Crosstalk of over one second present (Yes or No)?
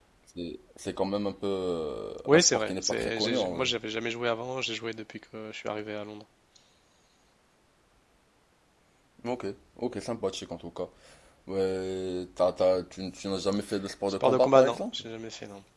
Yes